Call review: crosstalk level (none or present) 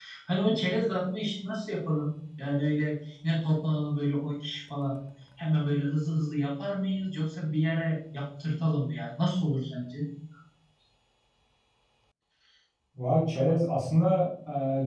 none